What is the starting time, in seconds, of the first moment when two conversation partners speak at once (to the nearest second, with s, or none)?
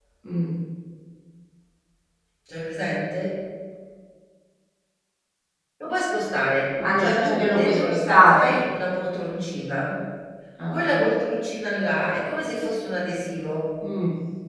7 s